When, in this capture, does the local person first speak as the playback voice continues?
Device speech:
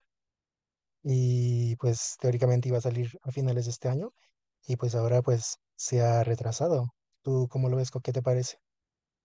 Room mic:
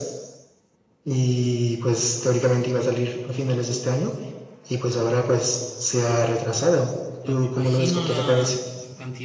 7.2 s

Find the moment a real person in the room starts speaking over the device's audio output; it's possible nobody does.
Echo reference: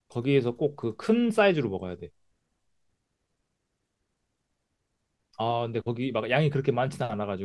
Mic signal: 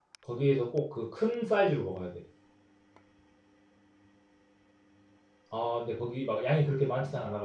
none

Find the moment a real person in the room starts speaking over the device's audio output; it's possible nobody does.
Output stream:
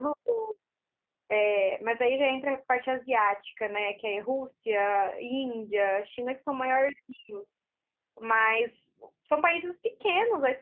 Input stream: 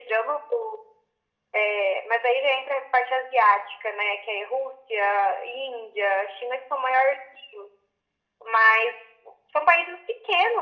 none

